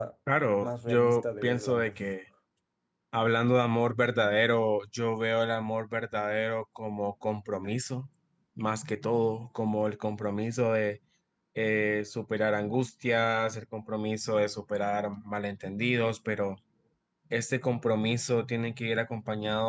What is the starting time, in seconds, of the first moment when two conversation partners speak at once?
0.6 s

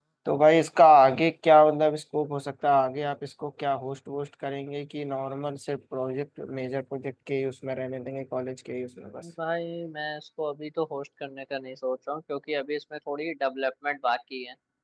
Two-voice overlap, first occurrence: none

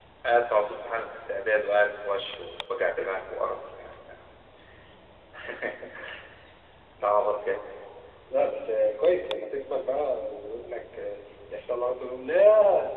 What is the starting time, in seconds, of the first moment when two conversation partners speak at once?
none

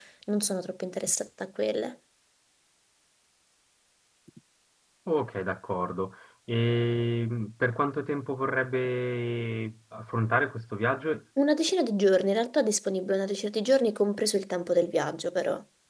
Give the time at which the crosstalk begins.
none

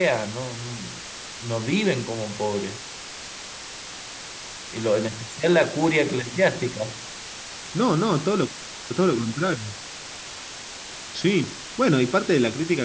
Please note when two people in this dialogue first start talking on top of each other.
none

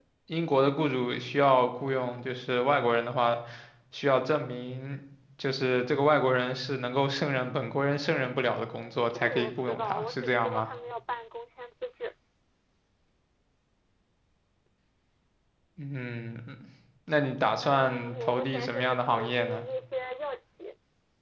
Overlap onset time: 8.8 s

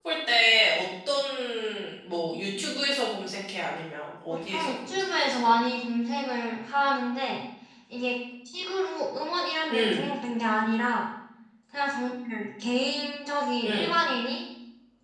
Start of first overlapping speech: 4.3 s

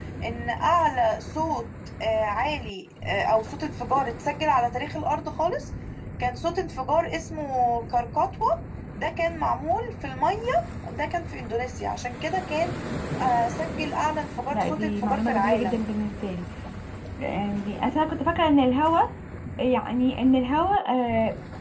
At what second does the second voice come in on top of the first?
14.5 s

